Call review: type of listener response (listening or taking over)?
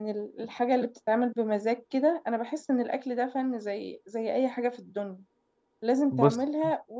listening